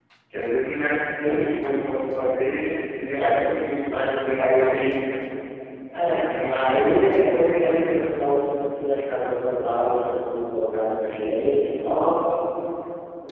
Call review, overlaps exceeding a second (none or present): present